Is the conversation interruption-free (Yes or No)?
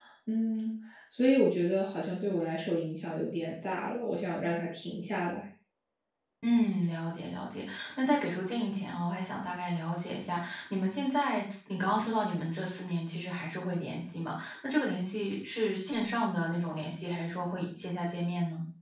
Yes